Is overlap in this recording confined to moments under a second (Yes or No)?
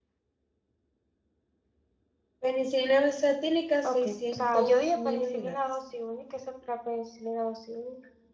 No